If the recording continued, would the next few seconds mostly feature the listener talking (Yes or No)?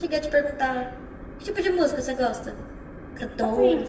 Yes